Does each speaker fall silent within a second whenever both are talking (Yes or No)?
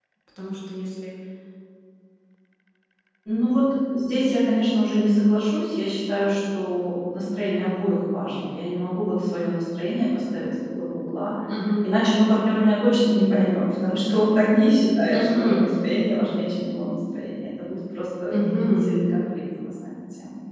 Yes